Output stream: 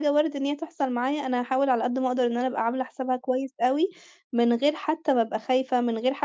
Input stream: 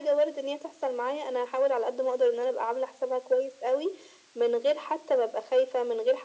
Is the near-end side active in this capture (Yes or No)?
No